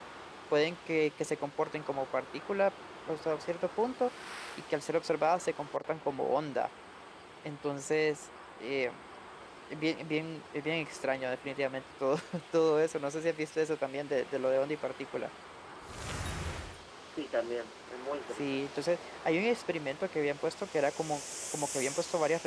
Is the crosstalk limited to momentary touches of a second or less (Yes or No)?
Yes